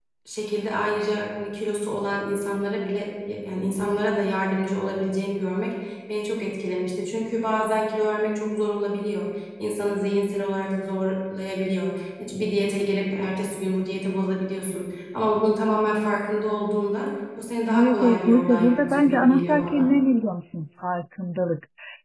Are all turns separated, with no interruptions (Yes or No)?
No